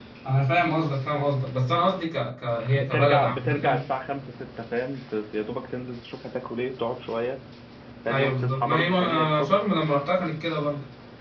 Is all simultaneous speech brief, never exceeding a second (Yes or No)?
No